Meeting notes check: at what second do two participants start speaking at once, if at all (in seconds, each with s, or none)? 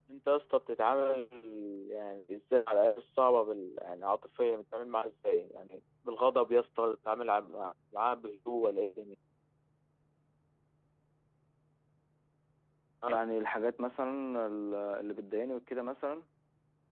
none